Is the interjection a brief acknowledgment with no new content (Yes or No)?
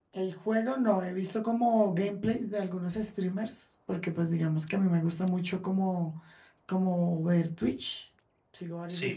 Yes